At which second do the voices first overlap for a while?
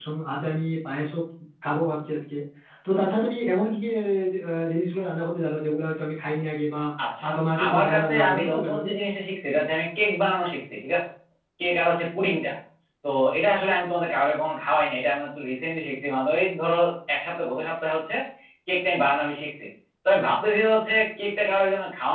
7.6 s

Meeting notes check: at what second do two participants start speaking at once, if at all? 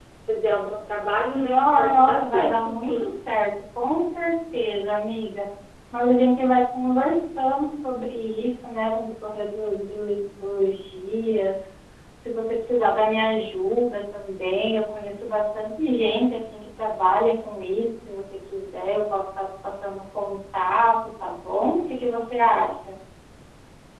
1.4 s

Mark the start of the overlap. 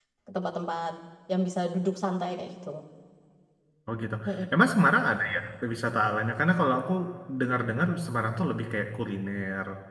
none

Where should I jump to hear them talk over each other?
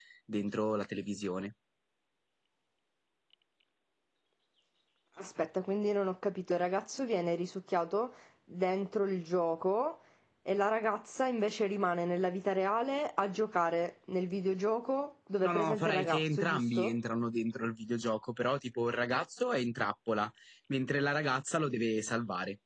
15.4 s

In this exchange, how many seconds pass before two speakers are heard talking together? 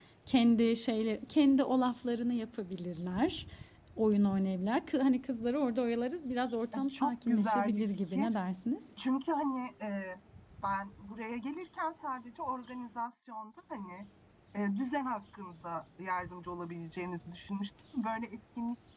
6.7 s

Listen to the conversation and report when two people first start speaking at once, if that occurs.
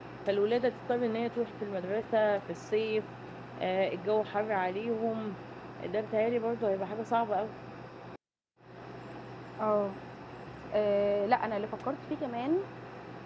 none

